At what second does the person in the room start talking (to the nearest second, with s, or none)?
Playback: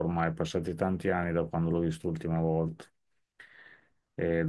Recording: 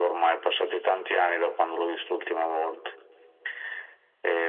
none